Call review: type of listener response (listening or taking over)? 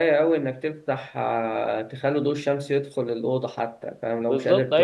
taking over